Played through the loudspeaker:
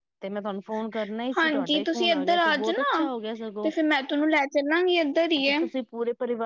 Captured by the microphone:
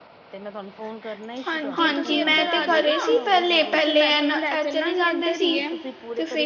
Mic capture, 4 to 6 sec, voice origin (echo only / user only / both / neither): both